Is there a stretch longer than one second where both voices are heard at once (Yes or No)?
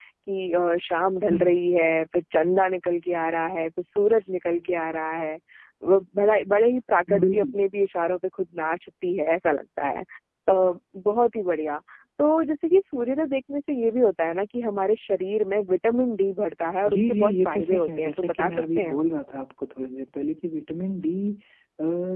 Yes